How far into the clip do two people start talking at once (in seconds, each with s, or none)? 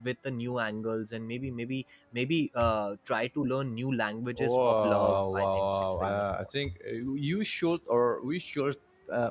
4.4 s